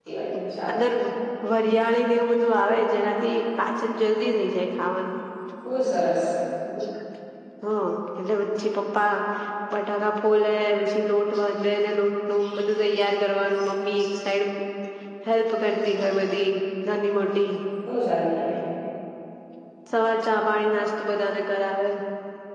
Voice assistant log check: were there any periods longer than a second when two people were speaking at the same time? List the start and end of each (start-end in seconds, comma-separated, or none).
none